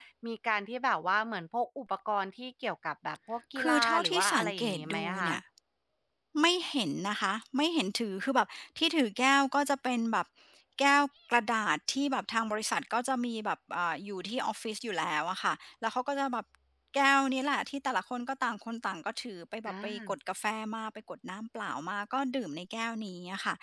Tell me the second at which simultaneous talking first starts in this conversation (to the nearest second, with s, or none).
4 s